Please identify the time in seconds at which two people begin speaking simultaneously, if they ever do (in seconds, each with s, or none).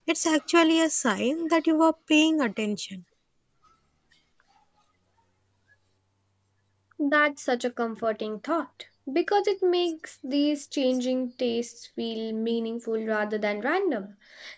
none